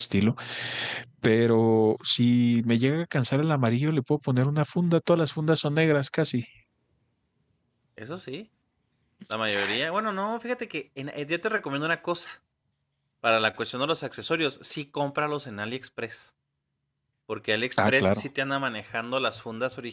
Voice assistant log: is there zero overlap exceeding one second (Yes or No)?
Yes